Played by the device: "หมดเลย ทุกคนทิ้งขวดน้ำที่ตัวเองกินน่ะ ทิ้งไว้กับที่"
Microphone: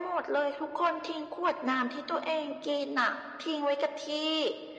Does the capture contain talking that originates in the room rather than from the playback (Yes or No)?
No